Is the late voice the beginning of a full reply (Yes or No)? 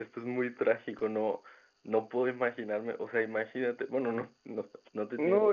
Yes